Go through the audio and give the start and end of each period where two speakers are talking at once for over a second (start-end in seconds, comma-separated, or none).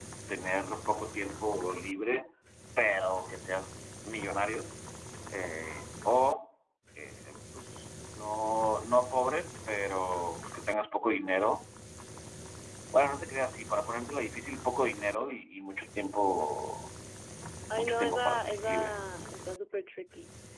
17.7-18.9